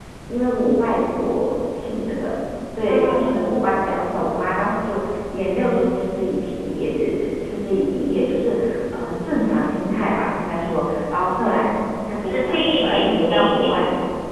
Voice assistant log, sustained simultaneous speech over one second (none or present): present